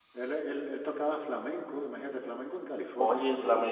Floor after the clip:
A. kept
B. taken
B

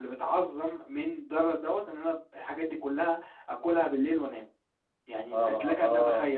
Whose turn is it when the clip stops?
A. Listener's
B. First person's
A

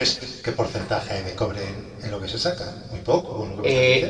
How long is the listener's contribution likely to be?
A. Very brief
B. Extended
B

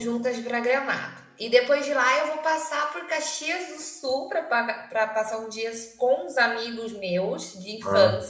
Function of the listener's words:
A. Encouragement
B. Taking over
A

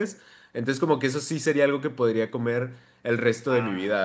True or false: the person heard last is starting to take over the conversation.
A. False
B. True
B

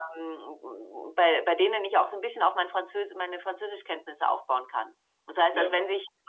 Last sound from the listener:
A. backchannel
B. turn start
A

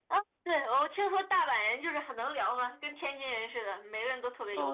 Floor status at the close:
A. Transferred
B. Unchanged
A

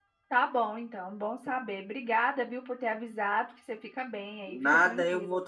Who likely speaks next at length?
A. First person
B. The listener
B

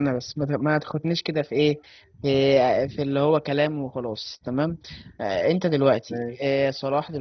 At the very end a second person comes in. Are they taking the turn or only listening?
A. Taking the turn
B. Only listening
B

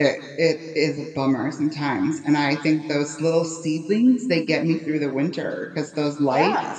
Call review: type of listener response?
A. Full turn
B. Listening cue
B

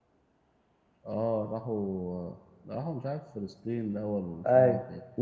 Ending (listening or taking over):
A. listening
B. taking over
B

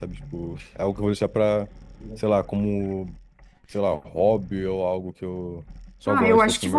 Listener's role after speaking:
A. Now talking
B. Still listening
A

